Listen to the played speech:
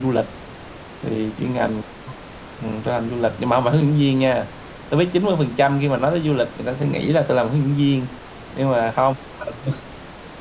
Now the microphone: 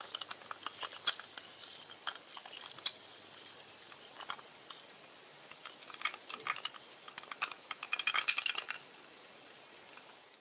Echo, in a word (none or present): none